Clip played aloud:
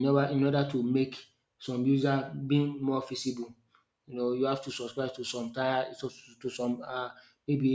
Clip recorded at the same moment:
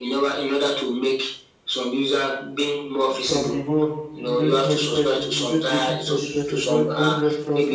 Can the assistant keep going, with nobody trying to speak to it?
No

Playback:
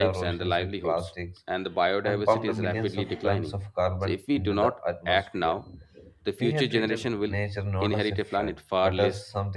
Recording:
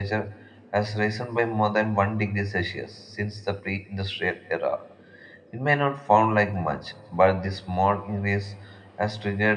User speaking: Yes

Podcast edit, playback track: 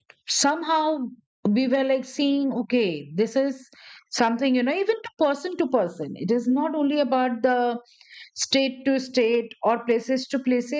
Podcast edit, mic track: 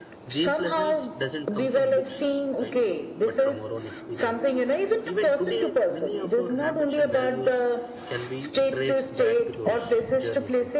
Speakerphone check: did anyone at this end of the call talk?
Yes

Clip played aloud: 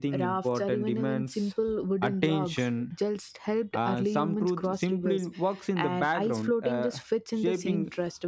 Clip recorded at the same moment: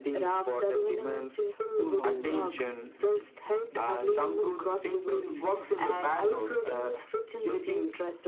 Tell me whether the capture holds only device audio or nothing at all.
No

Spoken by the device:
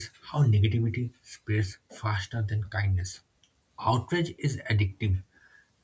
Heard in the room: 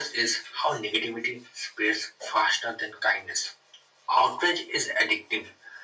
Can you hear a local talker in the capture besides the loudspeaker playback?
No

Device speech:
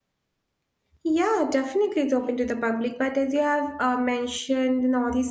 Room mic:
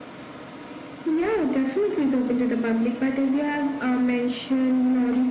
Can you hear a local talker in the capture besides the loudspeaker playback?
No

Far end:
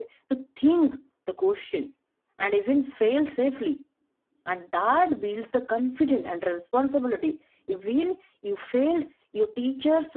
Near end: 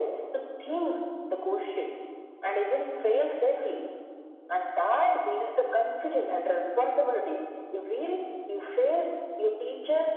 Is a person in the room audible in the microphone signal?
No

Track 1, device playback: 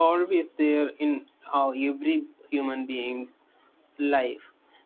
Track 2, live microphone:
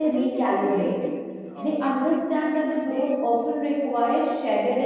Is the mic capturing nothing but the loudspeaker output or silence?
No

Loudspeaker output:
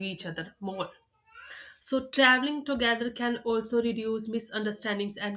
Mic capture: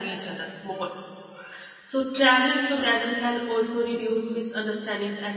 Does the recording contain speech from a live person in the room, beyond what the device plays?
No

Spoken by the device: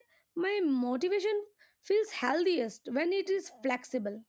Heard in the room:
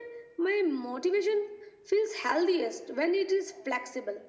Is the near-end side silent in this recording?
Yes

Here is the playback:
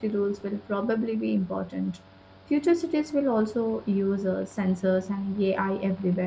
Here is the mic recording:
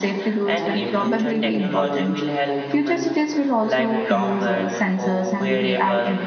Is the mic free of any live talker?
No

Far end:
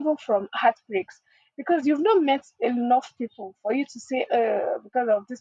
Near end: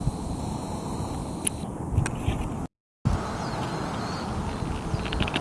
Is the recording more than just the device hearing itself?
No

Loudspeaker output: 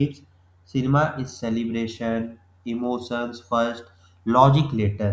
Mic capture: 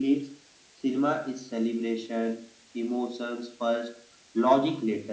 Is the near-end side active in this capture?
No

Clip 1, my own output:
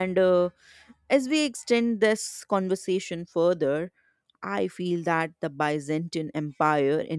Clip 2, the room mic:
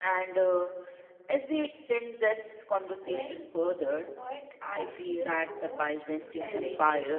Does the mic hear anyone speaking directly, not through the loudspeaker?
Yes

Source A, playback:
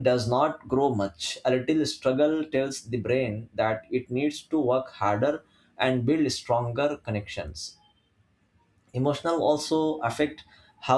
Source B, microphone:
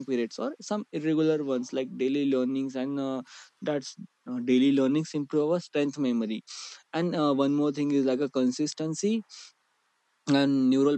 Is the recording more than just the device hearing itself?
Yes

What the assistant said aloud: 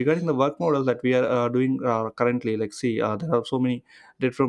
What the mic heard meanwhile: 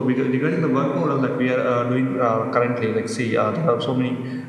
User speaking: No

